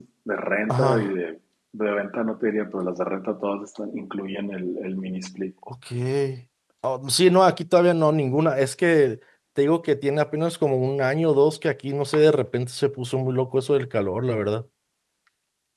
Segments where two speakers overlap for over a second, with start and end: none

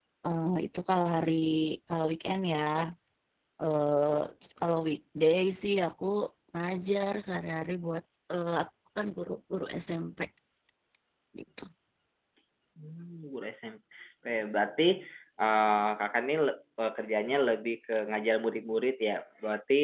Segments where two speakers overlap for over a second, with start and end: none

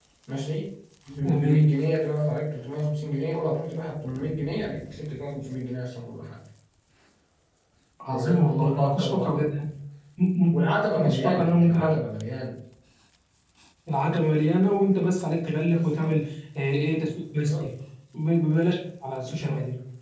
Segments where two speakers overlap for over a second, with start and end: 8.1-9.4, 10.5-11.9

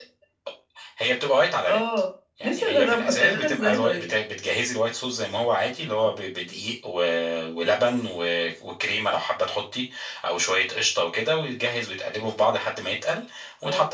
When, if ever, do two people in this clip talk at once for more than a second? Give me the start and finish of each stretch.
2.4-4.1

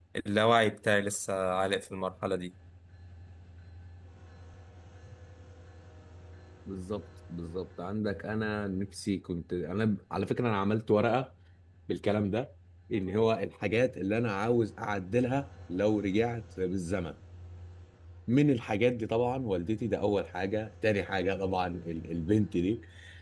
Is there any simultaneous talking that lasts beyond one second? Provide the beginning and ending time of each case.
none

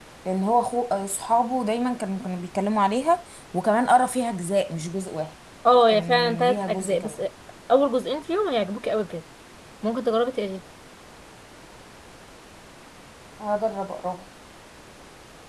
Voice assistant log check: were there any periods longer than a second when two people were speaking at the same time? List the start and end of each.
5.9-7.2

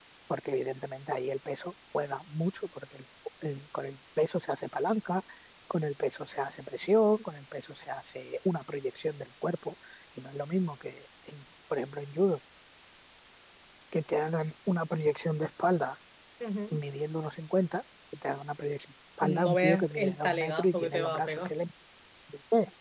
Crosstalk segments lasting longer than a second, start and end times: 19.2-21.5

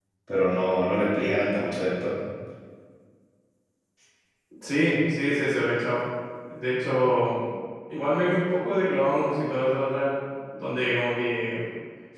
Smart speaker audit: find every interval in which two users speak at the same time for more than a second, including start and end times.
none

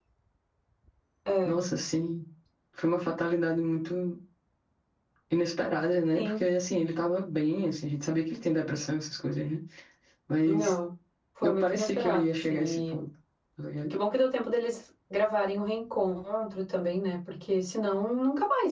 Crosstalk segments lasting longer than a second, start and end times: 11.4-13.0

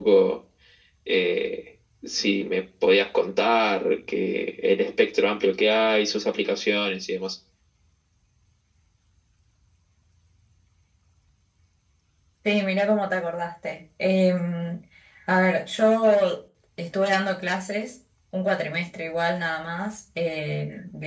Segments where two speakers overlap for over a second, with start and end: none

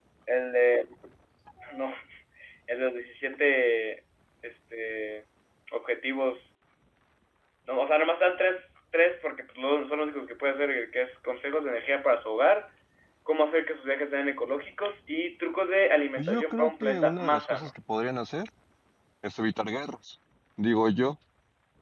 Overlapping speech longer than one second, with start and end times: 16.2-17.7

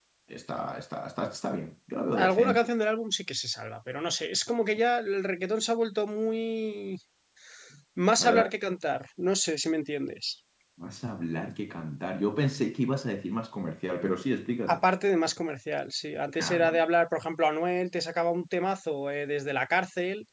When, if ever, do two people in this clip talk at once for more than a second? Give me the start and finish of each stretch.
none

